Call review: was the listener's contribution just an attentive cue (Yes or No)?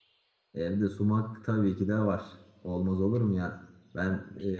Yes